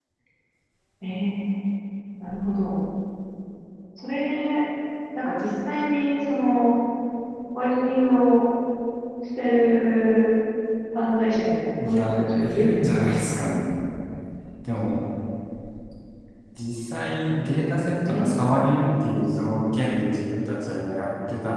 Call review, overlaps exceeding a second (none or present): present